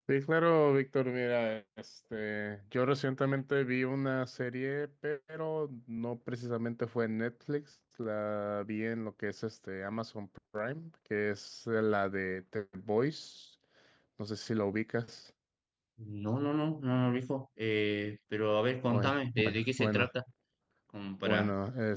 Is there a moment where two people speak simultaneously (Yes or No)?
Yes